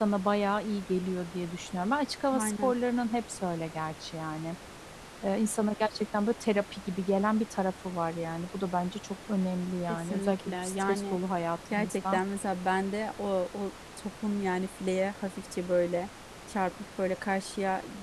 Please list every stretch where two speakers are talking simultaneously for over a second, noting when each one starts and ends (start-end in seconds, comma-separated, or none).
9.9-11.2